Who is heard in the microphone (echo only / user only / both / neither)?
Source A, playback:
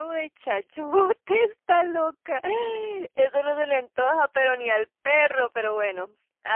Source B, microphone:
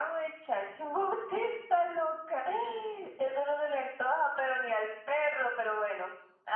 echo only